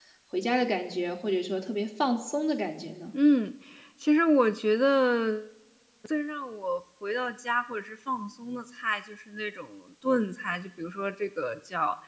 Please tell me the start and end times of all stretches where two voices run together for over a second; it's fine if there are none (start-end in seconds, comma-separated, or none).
none